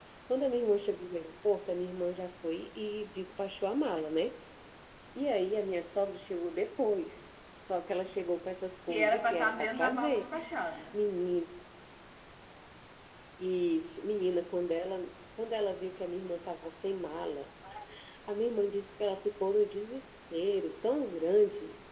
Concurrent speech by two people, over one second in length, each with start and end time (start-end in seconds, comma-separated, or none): 8.9-10.2